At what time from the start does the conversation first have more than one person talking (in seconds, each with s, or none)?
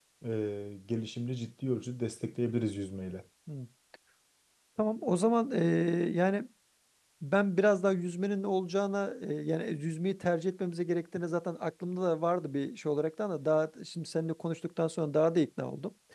none